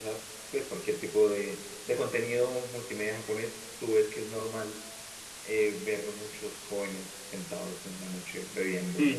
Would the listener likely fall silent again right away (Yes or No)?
No